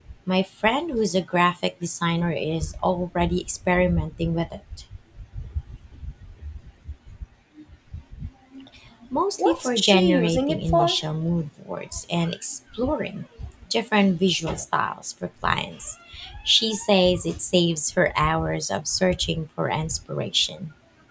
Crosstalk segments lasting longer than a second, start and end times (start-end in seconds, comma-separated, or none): 9.4-11.0